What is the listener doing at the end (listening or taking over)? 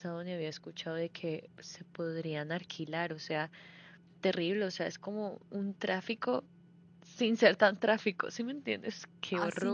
taking over